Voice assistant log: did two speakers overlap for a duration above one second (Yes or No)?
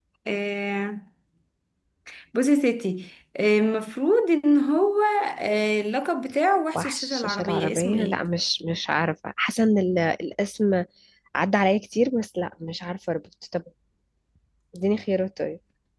Yes